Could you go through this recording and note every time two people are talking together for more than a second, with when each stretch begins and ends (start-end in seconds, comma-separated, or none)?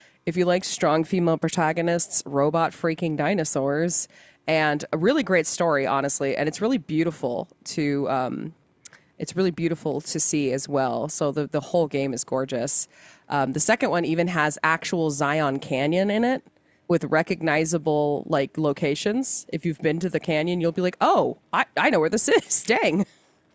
none